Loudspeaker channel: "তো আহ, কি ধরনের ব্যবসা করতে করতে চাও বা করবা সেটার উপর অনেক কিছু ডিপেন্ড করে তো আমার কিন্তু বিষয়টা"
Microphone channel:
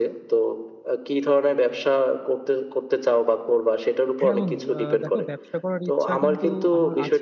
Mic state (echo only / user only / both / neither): both